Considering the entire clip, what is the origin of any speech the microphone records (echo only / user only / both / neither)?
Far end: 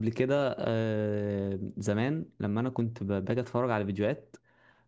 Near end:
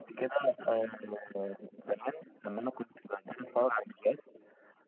echo only